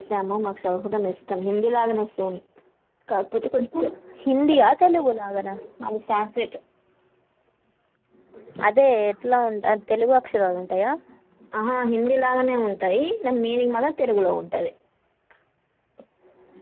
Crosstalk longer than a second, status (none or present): none